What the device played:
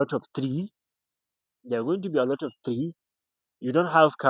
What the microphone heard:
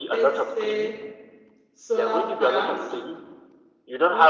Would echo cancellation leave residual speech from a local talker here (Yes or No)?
Yes